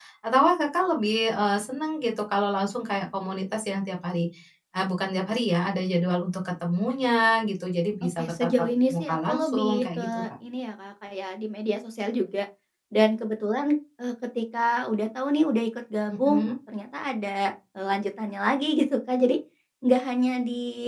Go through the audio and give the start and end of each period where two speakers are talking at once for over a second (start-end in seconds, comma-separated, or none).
8.2-10.2